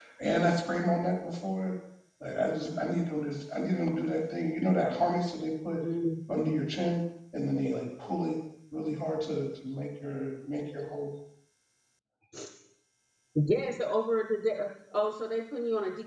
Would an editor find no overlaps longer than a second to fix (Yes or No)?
Yes